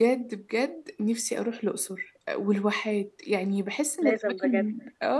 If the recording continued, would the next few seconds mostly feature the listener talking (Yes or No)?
No